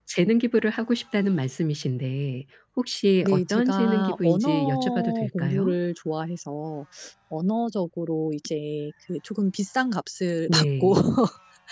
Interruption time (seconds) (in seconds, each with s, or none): 3.2 s